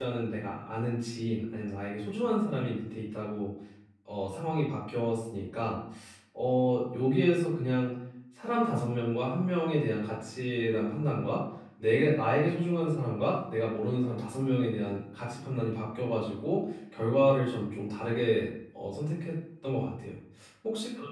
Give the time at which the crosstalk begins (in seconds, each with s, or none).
none